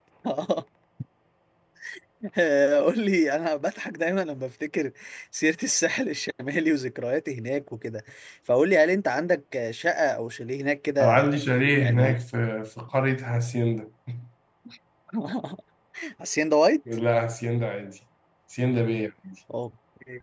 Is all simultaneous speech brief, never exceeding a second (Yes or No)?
Yes